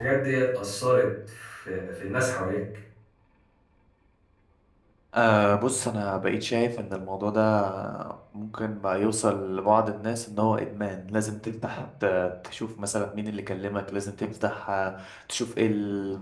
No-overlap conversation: Yes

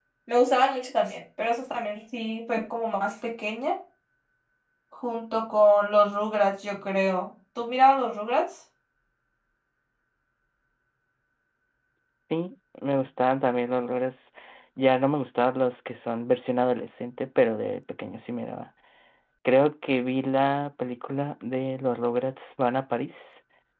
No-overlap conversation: Yes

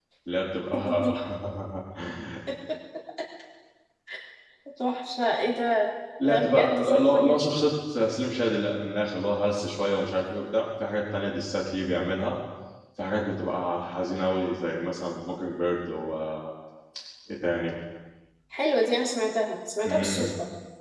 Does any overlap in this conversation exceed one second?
Yes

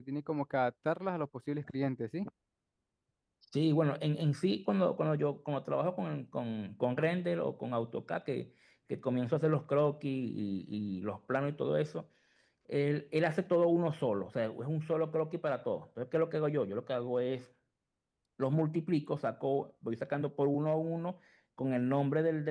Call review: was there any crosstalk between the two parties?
No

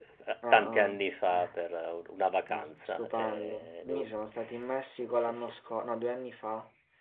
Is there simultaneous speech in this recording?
Yes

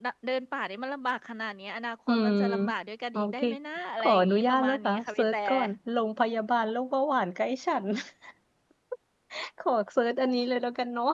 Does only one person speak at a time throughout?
No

